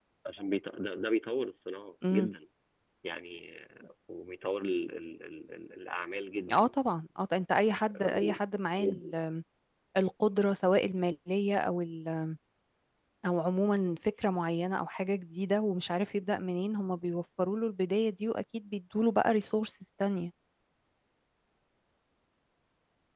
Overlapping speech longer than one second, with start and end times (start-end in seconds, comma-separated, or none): none